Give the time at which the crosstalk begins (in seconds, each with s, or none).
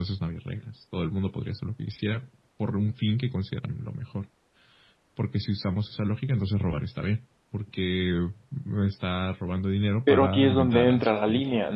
10.1 s